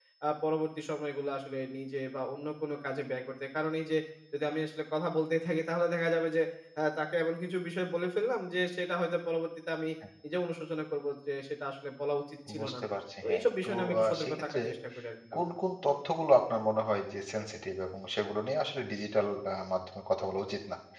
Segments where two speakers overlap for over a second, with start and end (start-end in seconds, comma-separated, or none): 13.2-14.6